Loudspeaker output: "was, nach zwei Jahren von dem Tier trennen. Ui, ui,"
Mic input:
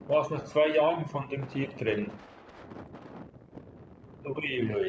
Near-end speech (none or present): none